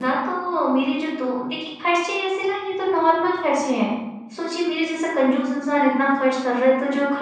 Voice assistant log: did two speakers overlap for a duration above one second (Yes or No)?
No